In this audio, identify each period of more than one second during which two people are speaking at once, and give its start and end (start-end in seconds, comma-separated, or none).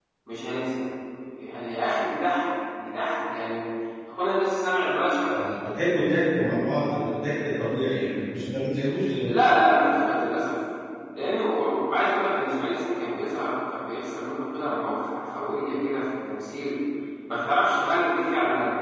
none